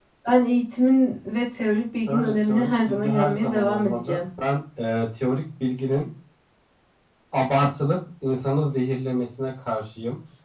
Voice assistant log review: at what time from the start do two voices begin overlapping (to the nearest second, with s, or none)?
2 s